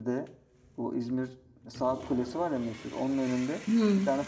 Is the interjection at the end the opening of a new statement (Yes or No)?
No